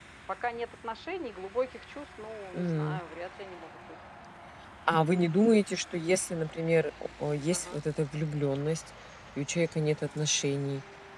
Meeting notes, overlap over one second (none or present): none